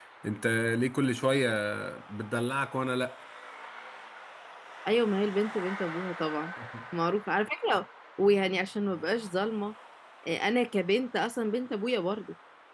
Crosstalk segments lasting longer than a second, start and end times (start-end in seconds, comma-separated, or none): none